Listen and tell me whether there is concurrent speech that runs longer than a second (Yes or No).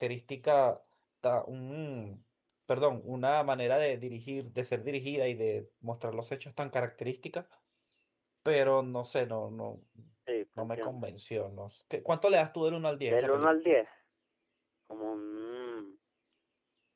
No